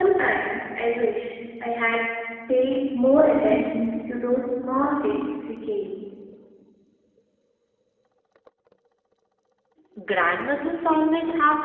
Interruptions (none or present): none